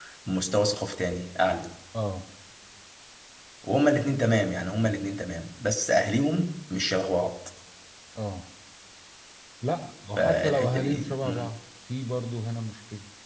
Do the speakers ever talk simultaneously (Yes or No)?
Yes